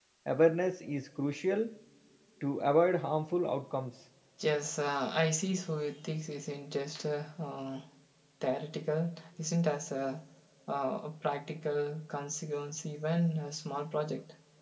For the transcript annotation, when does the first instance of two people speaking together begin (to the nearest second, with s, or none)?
none